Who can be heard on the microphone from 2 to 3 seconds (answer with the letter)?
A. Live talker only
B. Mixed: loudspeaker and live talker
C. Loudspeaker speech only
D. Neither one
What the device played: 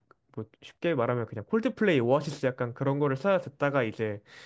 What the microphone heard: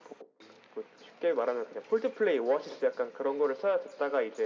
C